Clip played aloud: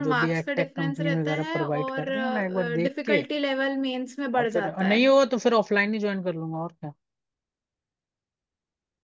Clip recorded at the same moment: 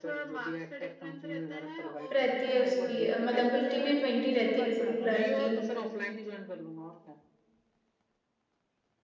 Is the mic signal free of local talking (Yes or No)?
No